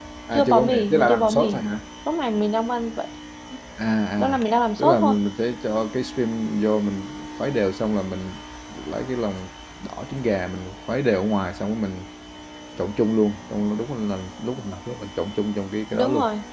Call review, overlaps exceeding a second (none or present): present